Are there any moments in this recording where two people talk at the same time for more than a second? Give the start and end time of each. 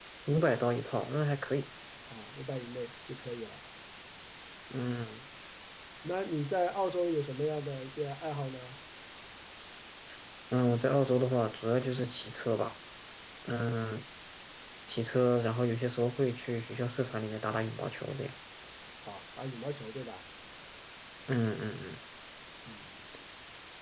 none

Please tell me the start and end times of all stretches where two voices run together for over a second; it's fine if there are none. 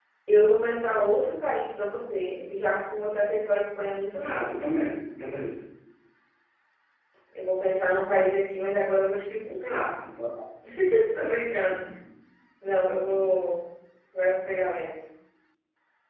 none

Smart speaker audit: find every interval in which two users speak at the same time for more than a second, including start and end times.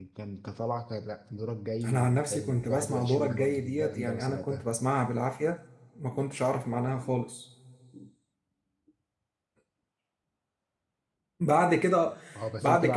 1.9-4.7

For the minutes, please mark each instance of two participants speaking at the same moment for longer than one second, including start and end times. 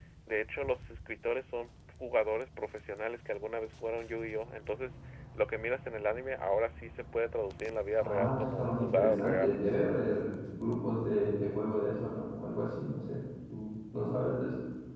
8.0-9.6

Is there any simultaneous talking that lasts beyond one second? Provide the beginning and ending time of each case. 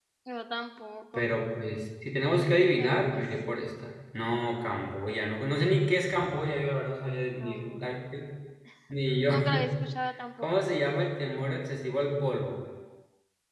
none

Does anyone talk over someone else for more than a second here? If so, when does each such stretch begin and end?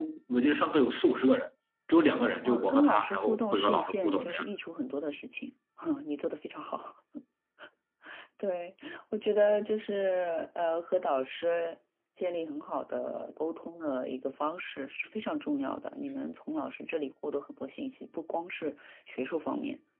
2.4-4.4

